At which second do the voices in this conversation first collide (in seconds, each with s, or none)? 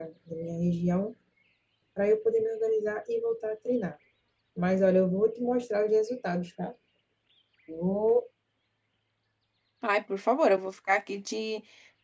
none